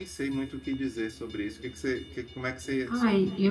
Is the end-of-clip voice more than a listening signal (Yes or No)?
Yes